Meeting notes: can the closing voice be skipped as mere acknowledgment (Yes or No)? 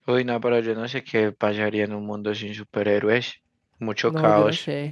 No